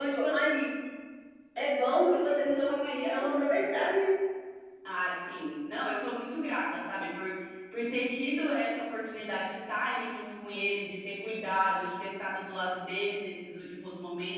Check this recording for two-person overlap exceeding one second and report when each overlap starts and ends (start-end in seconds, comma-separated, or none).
2.0-3.6